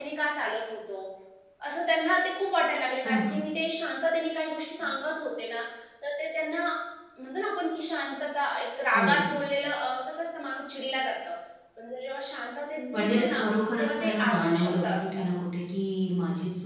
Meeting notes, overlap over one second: present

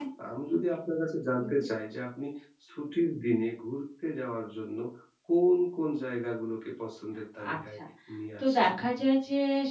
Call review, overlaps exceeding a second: none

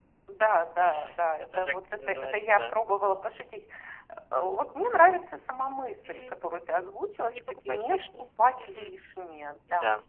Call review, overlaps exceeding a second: present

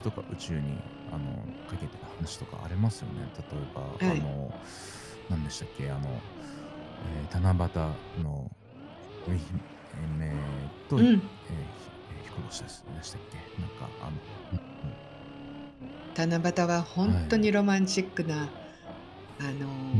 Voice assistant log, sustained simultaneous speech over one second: none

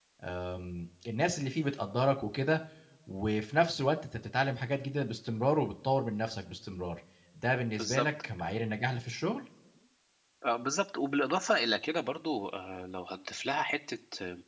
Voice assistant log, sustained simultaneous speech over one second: none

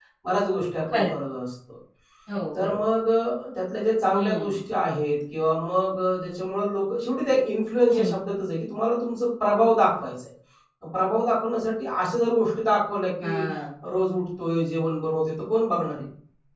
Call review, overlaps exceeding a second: none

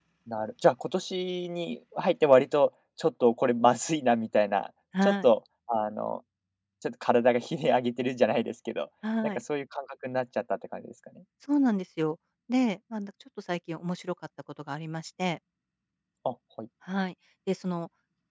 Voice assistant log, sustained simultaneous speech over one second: none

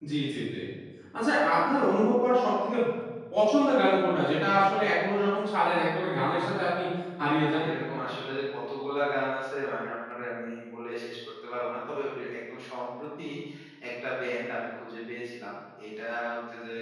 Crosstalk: none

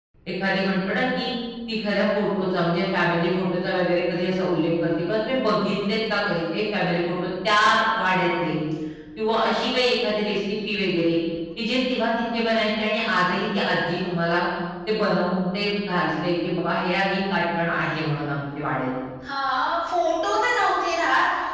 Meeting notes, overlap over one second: none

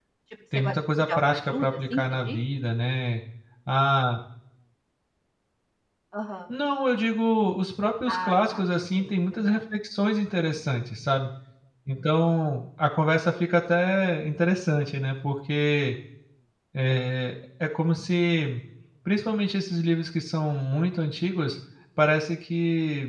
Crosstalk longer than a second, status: present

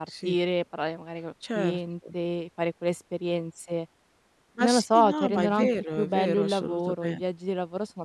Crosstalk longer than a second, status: present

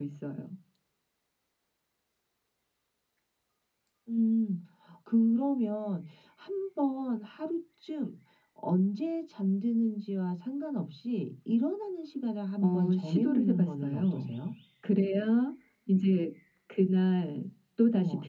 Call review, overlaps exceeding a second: present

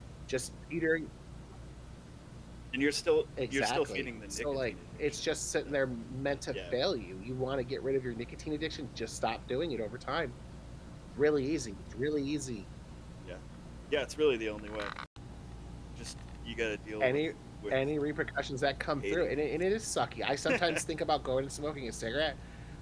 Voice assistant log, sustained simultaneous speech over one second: present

